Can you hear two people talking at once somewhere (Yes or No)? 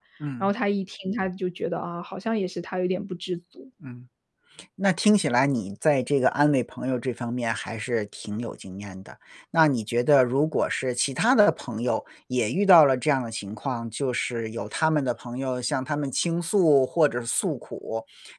No